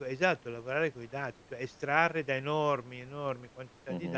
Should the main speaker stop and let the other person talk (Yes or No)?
No